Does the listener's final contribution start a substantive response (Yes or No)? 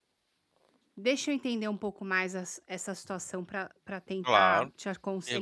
Yes